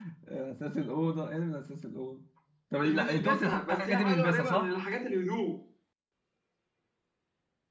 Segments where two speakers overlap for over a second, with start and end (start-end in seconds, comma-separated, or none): 2.8-4.7